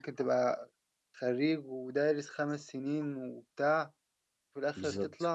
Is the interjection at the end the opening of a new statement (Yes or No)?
No